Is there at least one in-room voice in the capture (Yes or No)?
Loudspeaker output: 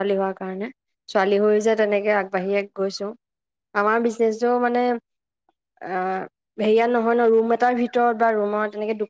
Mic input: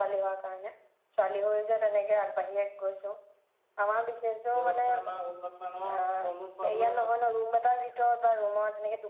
Yes